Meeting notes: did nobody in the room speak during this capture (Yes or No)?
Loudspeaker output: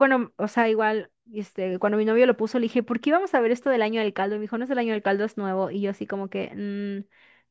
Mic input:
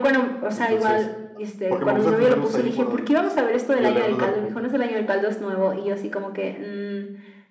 No